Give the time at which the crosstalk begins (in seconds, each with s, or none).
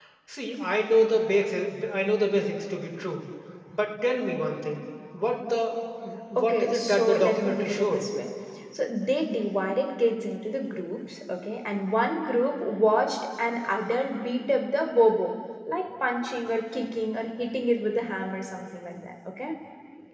6.4 s